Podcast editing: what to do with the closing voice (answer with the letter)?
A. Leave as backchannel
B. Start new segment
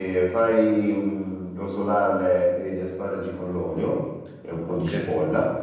A